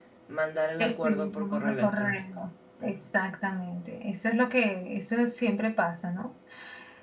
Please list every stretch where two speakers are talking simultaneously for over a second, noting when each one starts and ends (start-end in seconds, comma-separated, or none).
0.8-2.2